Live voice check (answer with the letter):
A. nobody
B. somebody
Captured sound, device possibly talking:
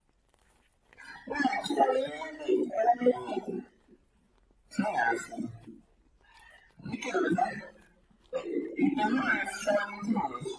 A